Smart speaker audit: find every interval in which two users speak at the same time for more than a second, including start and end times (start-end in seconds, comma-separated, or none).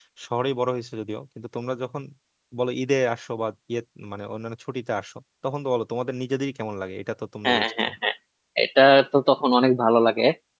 none